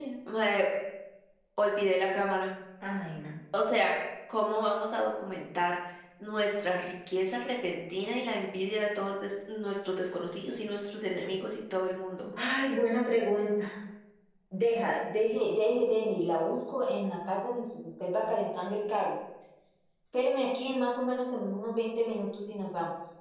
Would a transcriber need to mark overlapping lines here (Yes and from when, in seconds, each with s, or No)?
No